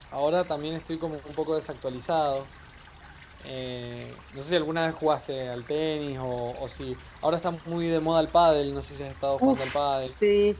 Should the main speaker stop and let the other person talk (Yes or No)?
Yes